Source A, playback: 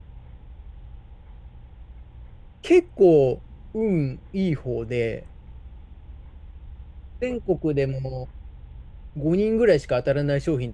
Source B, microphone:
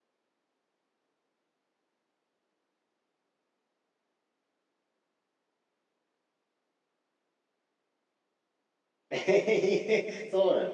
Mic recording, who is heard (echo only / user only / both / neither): user only